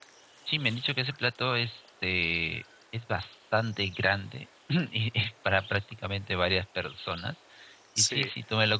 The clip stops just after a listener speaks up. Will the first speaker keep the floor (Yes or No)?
Yes